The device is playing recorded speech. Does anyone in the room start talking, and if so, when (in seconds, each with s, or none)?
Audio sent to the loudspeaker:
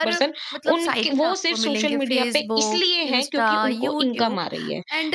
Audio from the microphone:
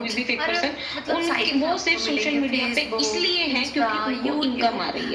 none